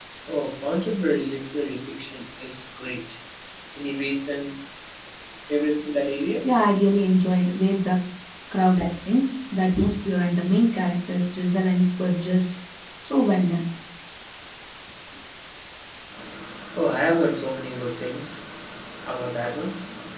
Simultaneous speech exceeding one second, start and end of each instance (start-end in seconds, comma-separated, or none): none